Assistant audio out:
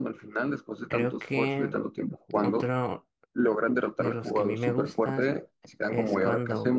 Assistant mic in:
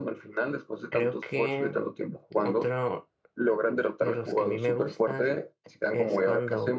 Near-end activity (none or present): none